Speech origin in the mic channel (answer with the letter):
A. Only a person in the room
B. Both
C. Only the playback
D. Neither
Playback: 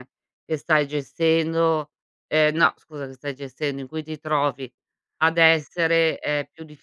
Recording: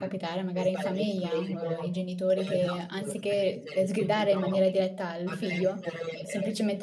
B